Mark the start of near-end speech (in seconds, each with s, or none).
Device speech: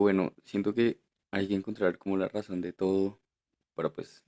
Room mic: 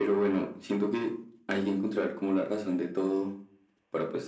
none